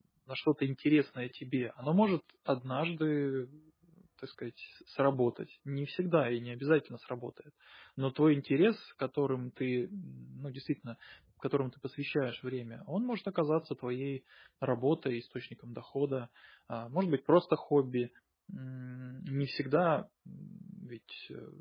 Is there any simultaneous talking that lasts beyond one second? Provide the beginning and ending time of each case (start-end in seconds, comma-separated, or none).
none